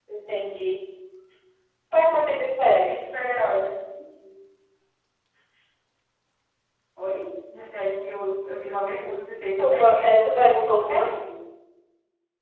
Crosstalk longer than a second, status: present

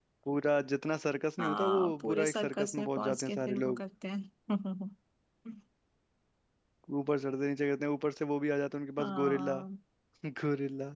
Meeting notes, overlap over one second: present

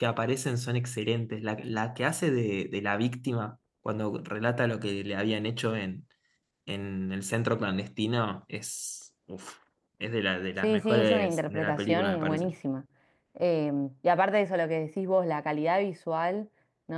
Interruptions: present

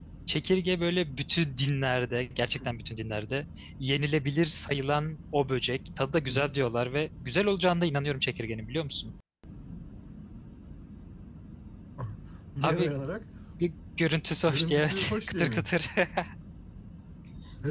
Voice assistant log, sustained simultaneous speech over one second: present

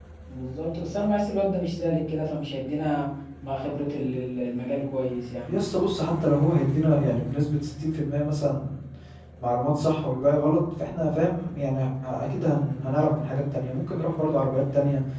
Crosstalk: none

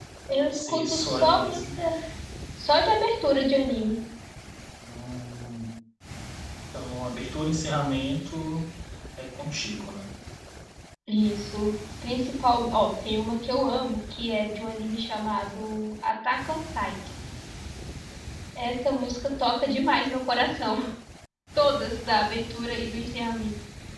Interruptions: present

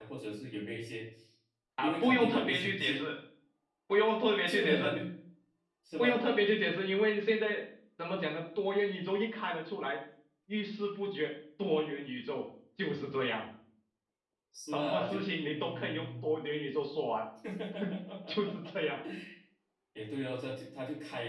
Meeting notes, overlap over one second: present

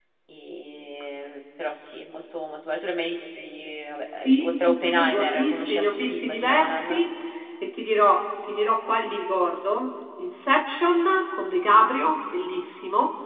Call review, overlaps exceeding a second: present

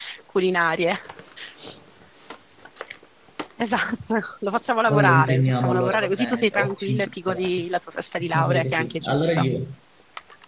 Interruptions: present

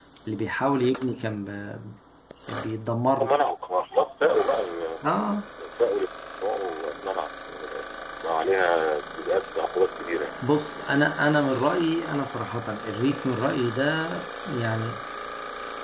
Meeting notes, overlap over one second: none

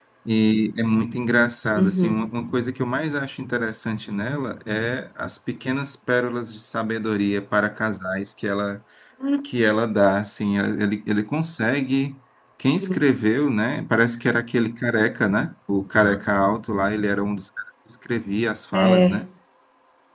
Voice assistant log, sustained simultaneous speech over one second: none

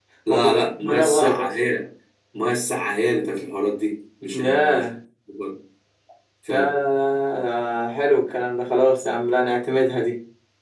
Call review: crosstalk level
present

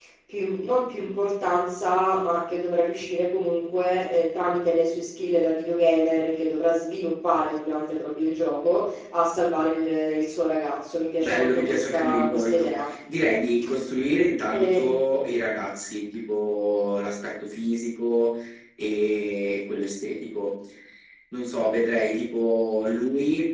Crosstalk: present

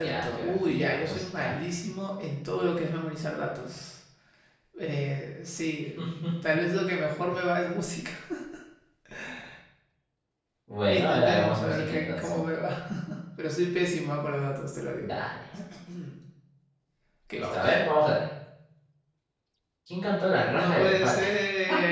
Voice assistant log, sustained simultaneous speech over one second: present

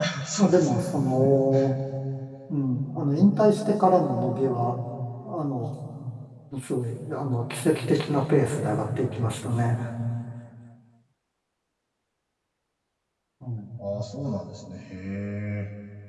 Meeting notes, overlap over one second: none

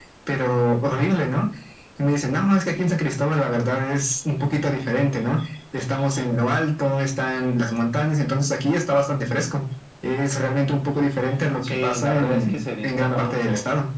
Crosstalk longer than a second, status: present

